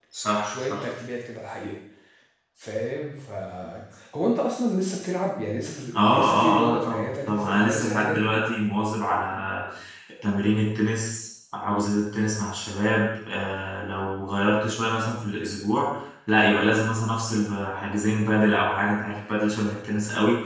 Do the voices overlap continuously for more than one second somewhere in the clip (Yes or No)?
Yes